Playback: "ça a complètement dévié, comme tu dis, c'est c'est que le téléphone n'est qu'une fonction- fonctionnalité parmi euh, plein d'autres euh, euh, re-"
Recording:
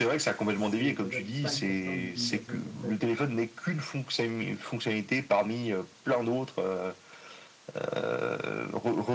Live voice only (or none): c'est peut-être 5% de l'utilisation qu'on fait, tu sais.